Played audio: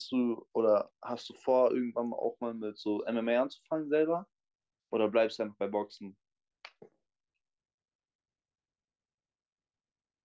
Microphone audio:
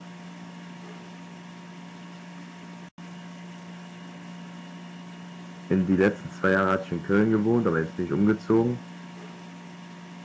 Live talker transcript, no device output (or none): in die letzten zwei Jahre hatte ich in Köln gewohnt, aber jetzt bin ich umgezogen